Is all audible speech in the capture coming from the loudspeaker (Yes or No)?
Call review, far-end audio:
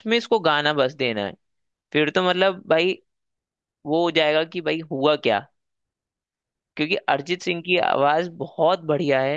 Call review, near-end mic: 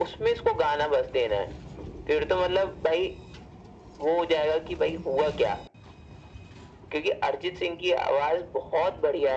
Yes